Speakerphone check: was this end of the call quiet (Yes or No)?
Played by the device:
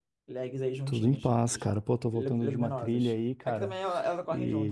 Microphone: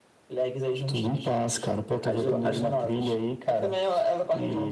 No